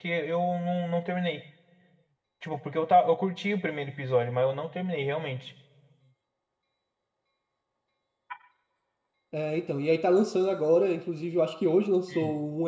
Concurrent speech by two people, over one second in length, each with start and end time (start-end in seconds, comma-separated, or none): none